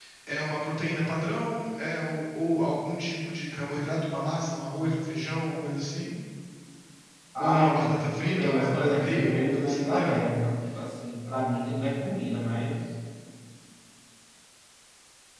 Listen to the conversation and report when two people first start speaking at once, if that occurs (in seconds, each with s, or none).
7.4 s